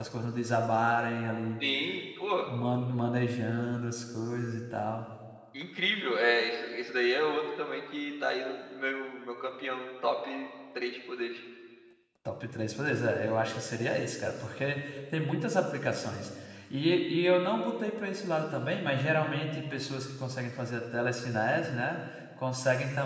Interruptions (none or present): none